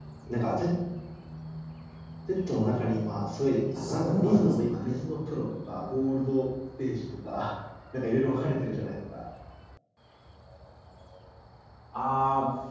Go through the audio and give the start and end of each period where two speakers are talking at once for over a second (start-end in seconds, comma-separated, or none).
3.8-5.0